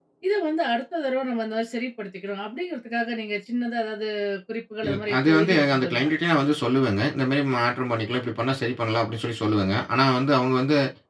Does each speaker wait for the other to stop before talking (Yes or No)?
No